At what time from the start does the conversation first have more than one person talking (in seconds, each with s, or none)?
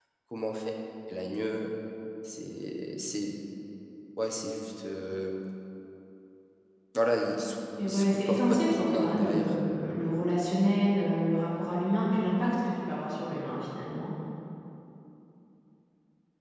7.8 s